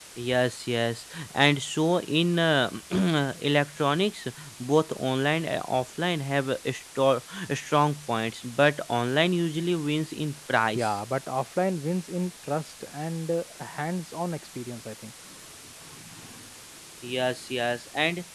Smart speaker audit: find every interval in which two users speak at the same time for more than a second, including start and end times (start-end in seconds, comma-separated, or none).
none